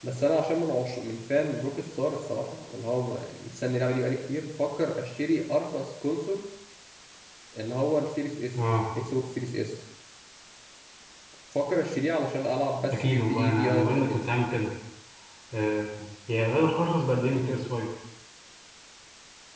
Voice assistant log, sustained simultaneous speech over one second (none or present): present